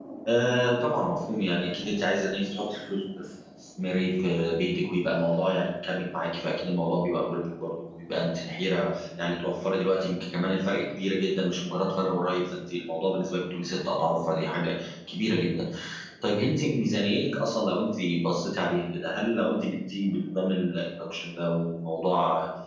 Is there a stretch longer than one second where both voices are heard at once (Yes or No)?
No